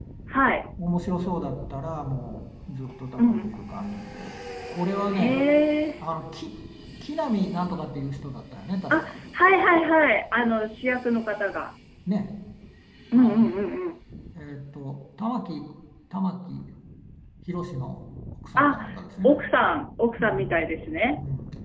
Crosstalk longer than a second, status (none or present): none